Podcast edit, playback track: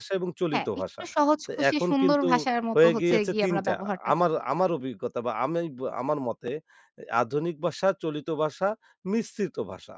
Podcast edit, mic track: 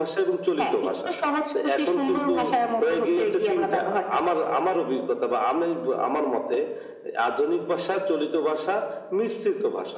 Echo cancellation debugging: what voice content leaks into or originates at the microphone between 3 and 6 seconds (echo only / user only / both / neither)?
echo only